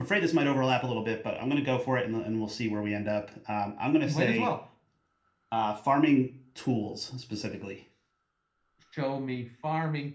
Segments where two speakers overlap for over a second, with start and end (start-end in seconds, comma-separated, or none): none